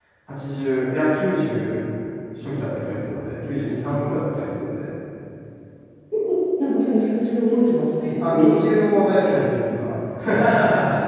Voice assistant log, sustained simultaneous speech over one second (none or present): none